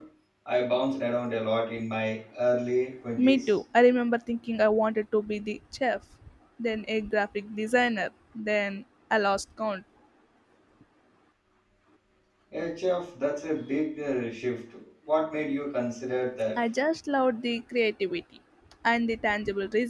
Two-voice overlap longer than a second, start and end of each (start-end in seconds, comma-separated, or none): none